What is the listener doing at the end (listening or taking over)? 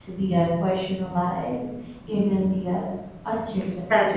taking over